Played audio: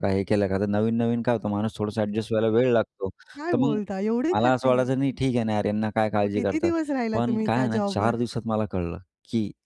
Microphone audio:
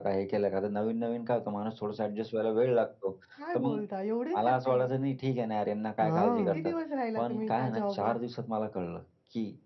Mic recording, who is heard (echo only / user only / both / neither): both